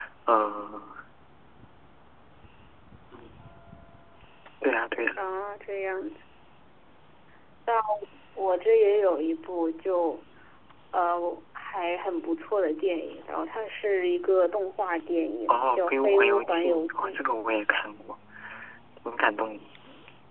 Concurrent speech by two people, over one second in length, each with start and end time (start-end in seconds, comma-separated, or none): 15.5-17.1